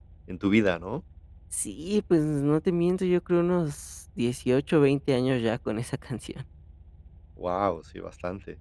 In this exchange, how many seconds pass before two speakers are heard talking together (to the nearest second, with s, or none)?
none